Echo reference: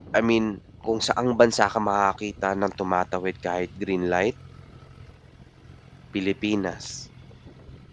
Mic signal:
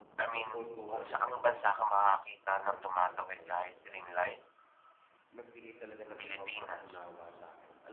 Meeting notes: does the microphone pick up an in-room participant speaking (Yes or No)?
Yes